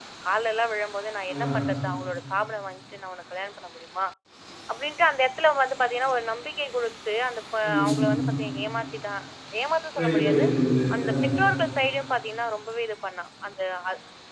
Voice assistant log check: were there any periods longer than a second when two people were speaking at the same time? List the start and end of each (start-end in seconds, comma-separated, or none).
none